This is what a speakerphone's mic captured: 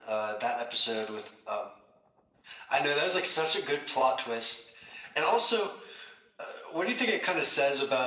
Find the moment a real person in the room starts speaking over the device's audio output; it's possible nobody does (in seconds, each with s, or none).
none